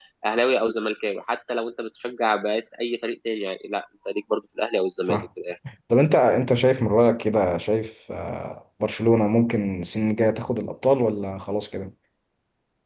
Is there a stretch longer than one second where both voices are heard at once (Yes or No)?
No